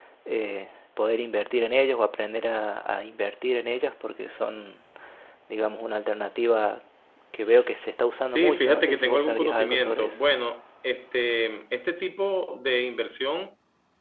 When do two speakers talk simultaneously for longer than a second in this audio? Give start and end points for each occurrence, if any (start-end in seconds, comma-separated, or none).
8.3-10.2